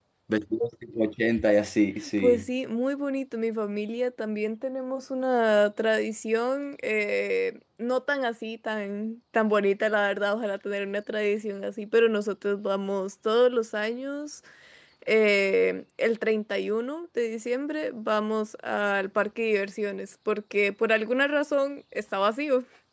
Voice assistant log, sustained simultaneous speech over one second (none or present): none